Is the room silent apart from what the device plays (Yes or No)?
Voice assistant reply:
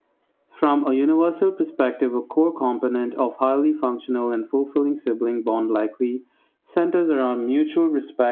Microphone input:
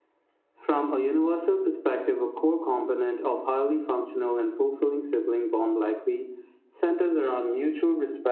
Yes